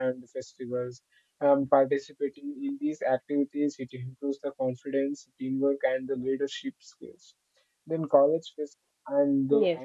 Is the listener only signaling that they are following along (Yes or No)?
Yes